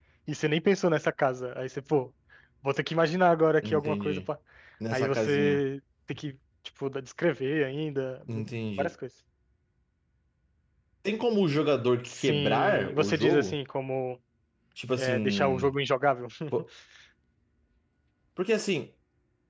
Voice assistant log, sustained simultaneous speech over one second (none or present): present